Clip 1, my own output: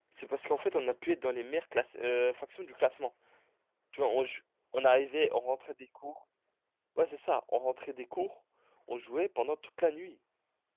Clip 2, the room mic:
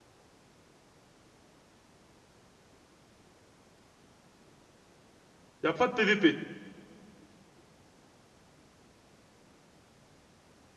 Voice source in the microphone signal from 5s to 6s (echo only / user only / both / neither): user only